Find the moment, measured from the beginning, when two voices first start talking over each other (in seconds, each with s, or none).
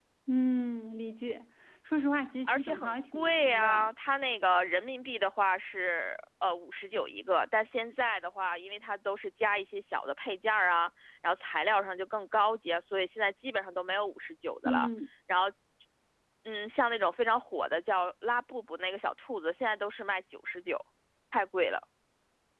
2.5 s